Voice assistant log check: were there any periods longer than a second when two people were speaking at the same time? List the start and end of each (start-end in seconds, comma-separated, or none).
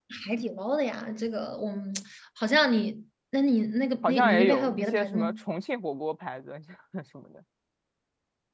4.0-5.4